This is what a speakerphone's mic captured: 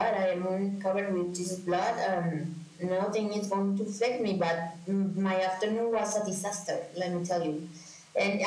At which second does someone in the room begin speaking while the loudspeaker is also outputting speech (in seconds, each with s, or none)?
none